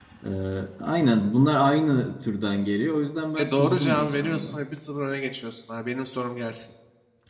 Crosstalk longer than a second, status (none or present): present